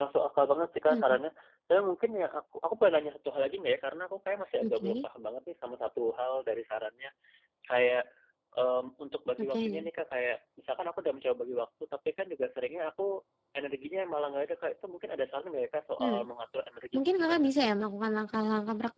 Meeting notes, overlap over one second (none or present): none